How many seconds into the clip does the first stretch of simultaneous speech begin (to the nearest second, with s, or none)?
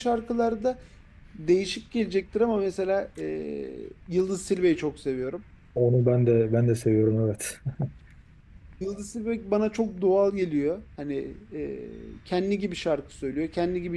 none